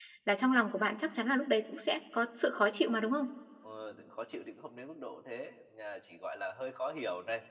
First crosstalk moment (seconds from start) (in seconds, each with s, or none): none